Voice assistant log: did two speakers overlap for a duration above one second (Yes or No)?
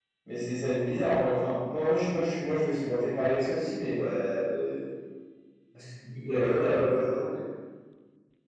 No